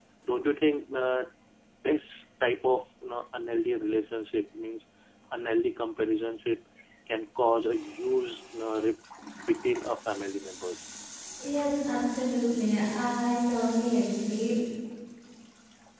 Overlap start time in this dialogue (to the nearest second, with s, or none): none